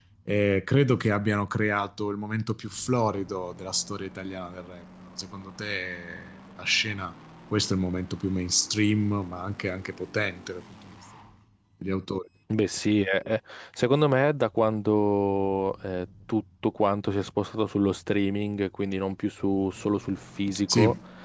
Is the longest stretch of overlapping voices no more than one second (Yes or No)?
Yes